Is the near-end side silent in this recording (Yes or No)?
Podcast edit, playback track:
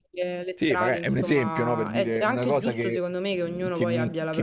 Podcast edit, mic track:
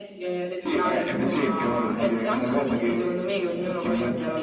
Yes